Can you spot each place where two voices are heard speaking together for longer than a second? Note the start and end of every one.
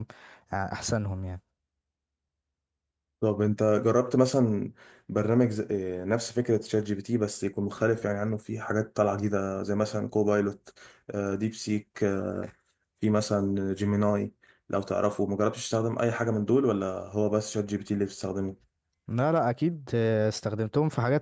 none

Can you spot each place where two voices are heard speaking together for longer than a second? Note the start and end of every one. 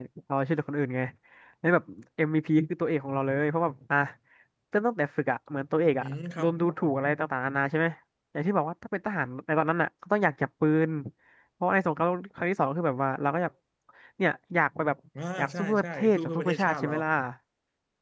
15.4-16.9

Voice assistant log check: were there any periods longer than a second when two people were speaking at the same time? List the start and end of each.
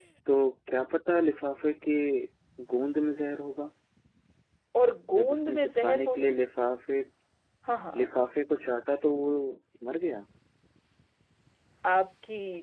5.1-6.3

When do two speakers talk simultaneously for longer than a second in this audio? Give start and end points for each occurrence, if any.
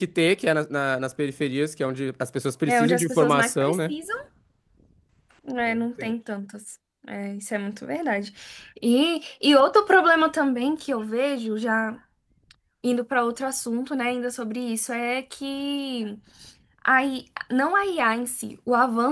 2.7-3.9

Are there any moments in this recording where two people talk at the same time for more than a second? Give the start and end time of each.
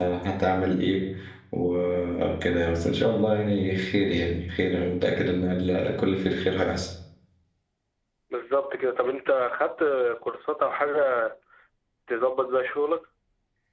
none

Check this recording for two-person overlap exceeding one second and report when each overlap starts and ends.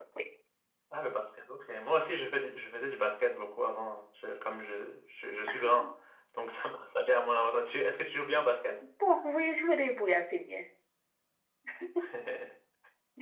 none

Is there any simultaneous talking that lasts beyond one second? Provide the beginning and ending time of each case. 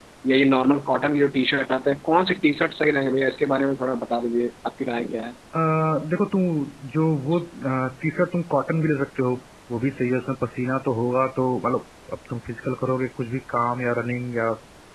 none

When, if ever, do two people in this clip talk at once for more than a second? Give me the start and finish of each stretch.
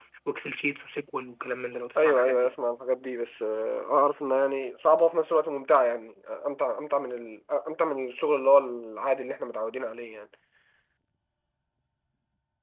none

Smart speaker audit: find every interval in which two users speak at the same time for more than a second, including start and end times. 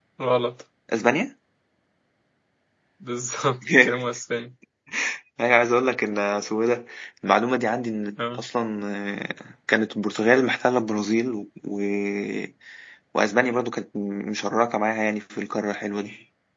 none

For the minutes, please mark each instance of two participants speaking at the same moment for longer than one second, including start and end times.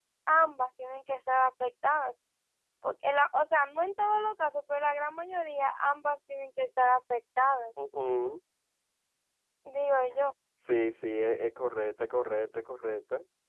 none

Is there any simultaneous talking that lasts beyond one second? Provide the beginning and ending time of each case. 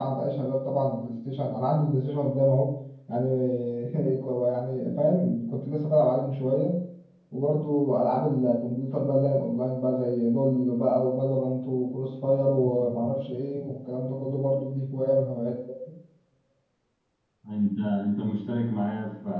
none

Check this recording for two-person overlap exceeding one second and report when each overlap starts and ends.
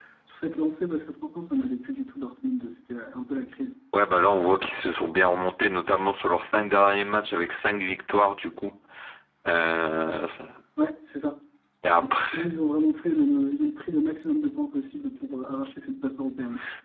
none

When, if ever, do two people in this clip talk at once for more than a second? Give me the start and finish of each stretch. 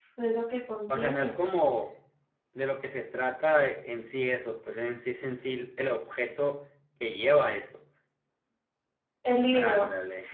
none

